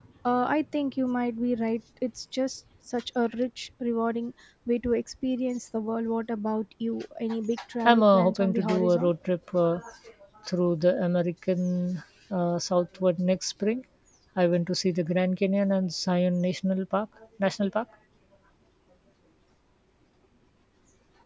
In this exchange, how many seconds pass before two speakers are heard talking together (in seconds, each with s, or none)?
7.8 s